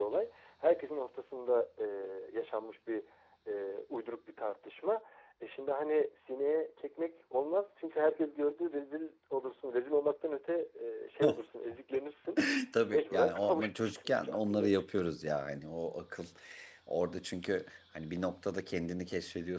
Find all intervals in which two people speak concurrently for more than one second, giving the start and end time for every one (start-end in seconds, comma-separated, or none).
12.8-14.7